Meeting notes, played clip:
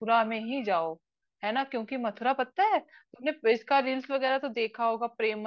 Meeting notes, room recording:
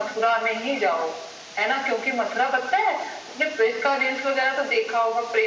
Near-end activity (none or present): none